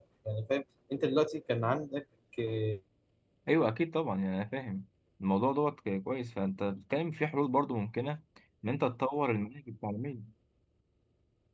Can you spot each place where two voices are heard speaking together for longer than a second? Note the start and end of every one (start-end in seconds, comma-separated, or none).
none